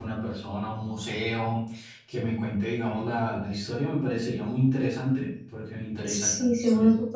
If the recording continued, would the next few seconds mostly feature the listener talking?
Yes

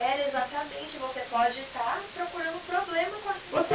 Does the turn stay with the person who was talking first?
No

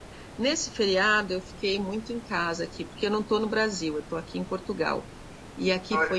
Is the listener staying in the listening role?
Yes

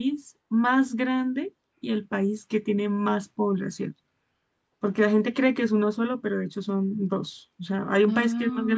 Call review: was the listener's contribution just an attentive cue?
Yes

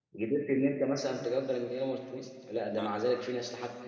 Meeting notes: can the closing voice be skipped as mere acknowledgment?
Yes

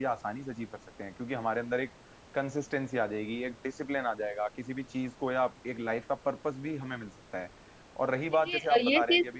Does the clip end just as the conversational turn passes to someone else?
Yes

